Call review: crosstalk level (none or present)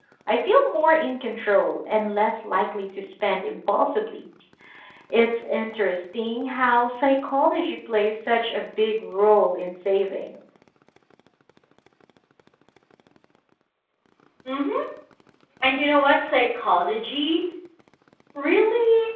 none